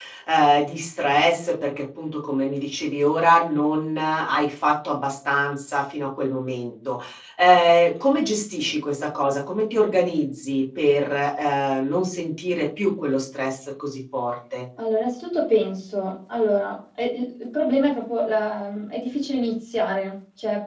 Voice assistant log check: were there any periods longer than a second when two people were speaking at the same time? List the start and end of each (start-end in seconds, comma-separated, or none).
none